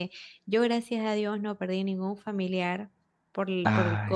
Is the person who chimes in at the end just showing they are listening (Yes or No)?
Yes